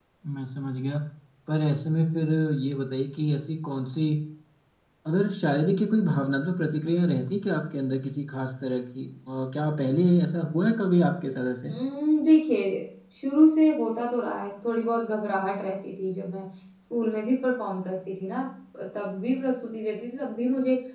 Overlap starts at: none

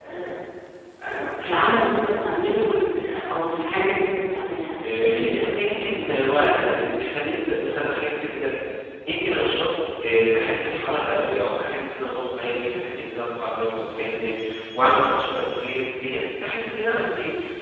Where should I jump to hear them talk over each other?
4.8 s

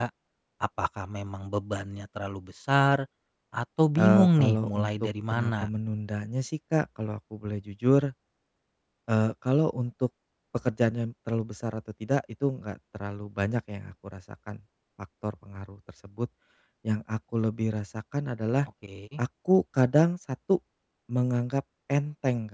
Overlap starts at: 4.0 s

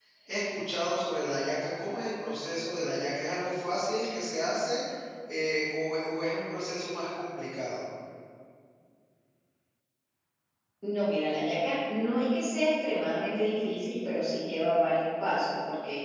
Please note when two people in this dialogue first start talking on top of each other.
none

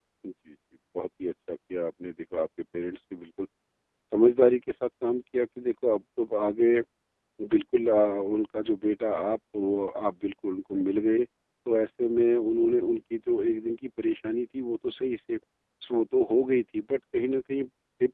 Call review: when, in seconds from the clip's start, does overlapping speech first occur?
none

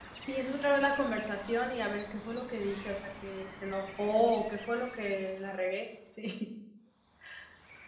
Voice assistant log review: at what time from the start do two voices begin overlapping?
none

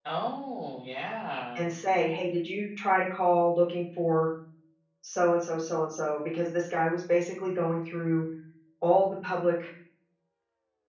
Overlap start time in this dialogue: none

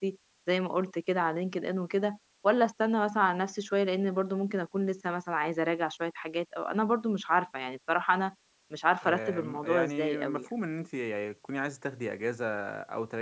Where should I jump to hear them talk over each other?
9.0 s

